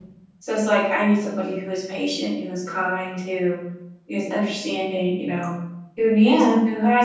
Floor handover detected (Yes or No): No